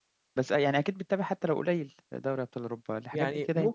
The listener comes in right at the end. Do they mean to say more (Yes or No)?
Yes